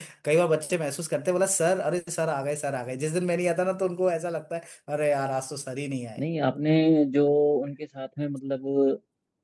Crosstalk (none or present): none